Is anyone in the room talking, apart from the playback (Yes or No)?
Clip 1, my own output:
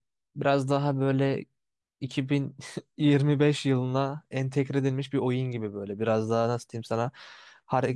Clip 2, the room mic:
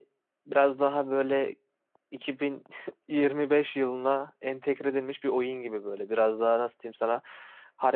No